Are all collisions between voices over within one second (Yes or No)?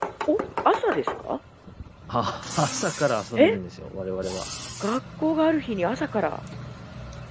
Yes